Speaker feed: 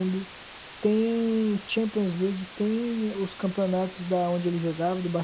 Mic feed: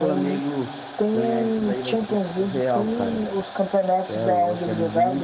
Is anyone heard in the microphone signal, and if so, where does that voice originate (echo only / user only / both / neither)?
both